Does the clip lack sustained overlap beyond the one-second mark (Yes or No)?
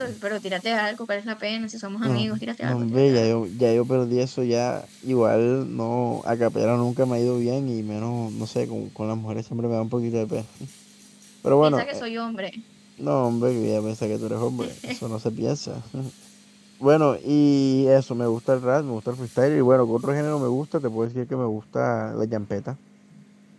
No